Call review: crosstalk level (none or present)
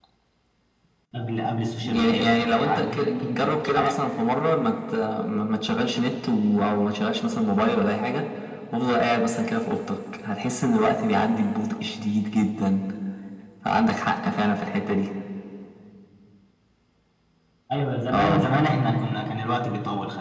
present